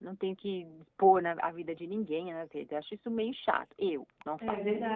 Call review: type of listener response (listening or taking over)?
taking over